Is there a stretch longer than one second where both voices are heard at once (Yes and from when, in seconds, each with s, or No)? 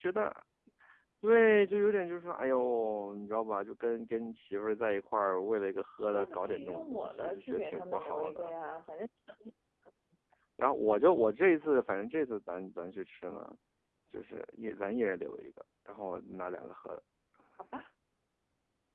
Yes, from 6.0 s